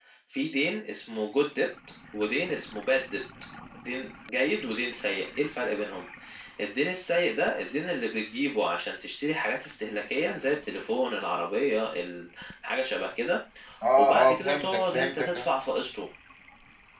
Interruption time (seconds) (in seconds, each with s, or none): 14.0 s